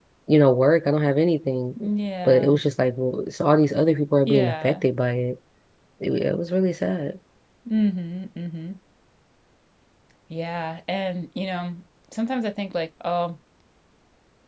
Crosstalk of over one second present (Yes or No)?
No